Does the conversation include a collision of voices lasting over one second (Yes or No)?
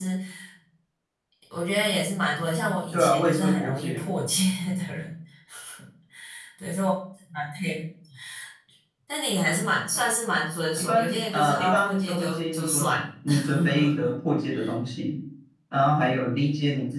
Yes